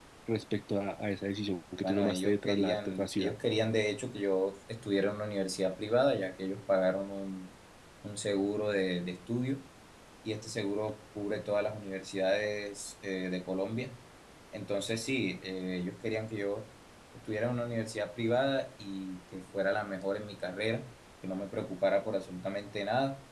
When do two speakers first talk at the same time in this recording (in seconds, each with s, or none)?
1.8 s